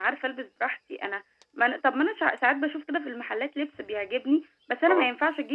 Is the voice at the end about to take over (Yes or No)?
No